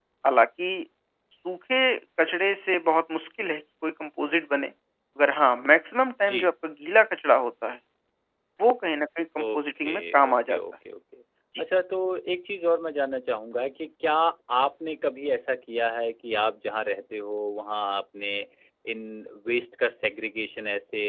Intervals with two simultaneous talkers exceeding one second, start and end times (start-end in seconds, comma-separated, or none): 9.4-10.6